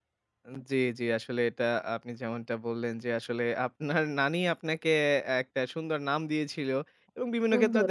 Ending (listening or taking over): listening